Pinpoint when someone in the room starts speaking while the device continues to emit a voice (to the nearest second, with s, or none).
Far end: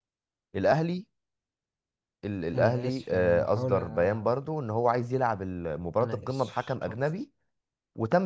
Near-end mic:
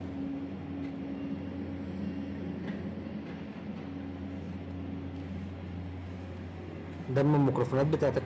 7 s